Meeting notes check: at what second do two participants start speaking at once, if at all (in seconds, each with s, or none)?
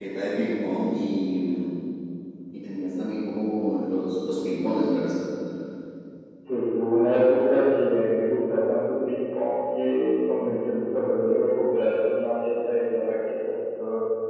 none